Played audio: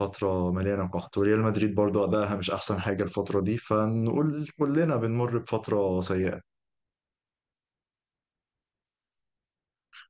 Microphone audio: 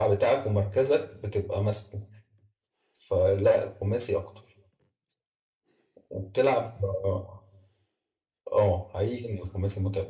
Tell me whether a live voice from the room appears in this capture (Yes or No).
Yes